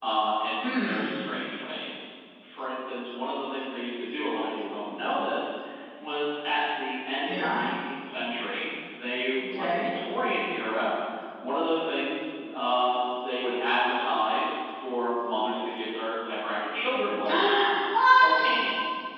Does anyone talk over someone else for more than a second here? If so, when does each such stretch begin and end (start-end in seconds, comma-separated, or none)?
none